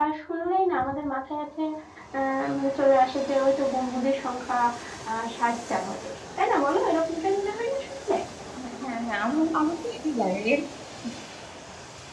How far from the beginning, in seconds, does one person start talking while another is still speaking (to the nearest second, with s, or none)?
none